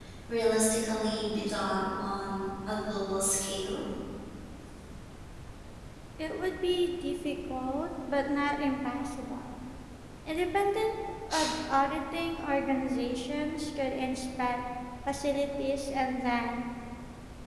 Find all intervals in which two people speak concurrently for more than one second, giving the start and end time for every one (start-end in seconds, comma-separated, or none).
none